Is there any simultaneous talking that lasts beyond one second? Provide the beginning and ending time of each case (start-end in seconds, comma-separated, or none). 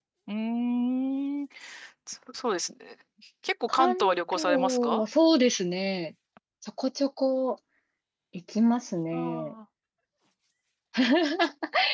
3.7-5.0